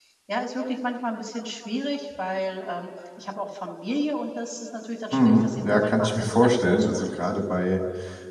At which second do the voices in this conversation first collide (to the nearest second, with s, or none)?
5 s